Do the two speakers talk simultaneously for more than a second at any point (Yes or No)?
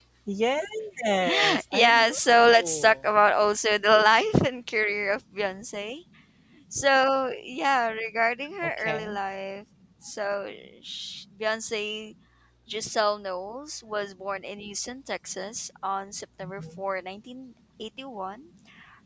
Yes